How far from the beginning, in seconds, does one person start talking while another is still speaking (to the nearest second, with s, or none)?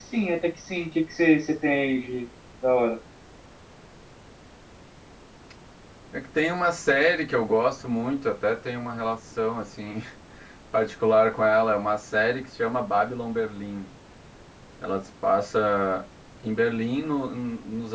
none